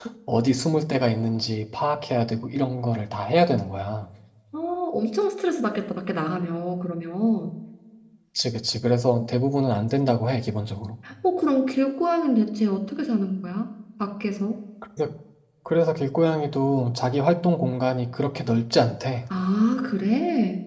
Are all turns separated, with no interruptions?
Yes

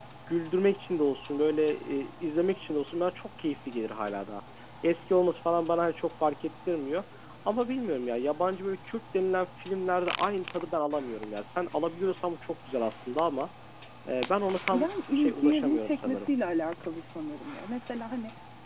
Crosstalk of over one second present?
Yes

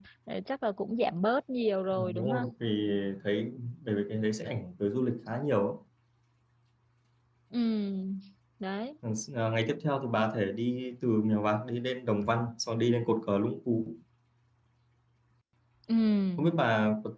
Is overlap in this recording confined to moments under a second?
Yes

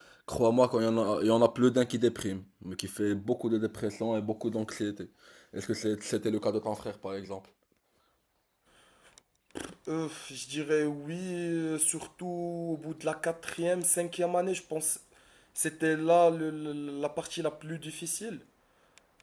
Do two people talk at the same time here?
No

